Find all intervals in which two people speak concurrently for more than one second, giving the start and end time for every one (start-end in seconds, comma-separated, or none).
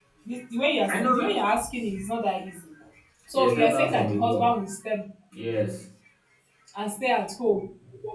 3.3-4.6